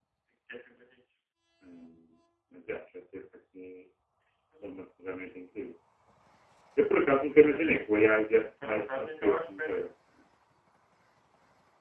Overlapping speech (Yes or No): Yes